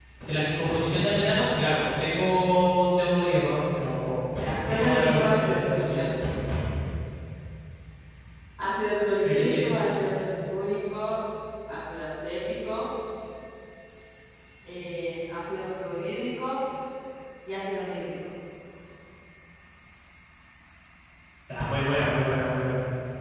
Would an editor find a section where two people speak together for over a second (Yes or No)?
Yes